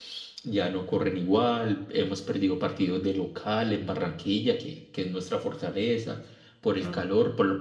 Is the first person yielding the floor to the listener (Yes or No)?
No